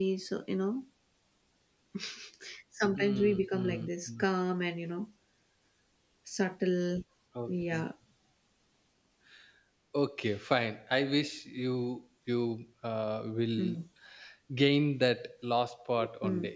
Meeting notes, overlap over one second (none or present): present